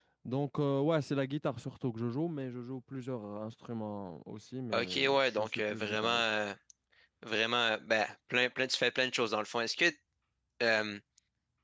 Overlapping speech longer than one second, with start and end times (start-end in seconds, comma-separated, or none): 4.7-6.2